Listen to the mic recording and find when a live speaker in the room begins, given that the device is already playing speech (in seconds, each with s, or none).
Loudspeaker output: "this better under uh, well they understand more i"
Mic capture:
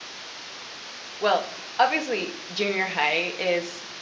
1.2 s